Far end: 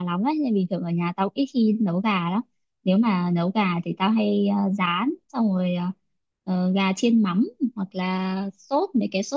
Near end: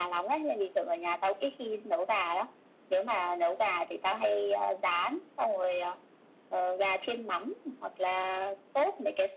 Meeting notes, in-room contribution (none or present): none